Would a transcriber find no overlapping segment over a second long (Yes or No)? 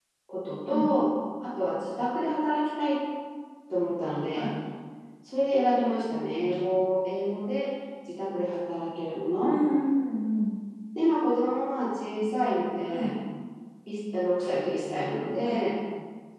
Yes